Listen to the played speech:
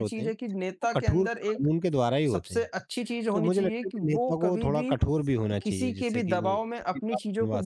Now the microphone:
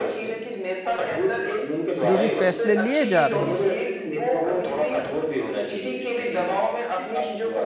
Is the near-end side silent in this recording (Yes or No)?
No